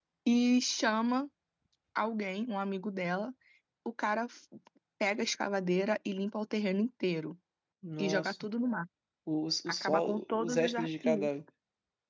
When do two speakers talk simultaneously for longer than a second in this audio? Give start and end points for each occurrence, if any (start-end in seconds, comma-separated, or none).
9.7-11.3